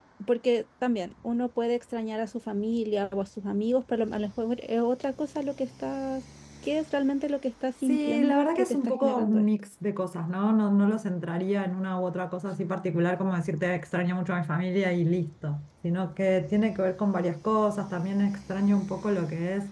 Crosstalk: present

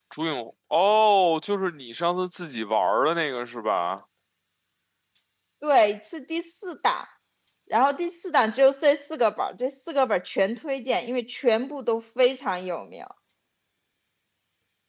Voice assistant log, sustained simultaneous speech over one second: none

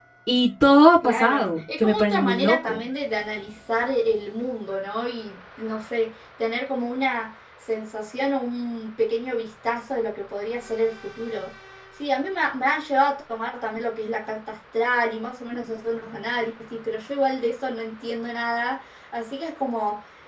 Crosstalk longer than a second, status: present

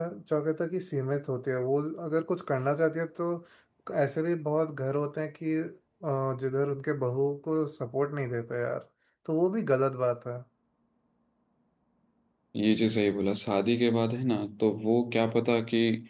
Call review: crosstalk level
none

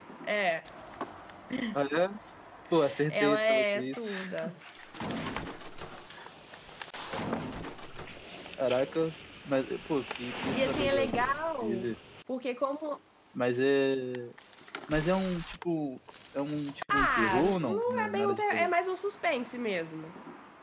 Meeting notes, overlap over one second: present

